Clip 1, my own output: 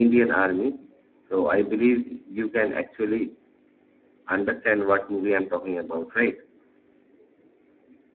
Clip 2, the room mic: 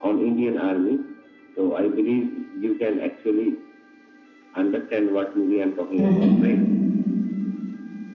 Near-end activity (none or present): present